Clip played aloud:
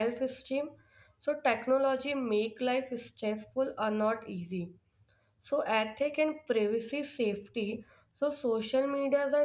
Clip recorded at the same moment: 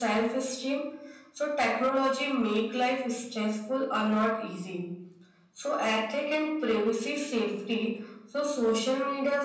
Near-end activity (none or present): none